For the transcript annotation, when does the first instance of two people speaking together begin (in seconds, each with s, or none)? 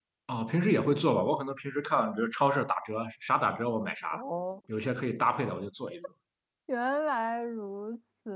none